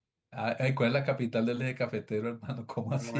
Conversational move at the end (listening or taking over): taking over